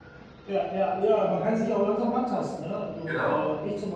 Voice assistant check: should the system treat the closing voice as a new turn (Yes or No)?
No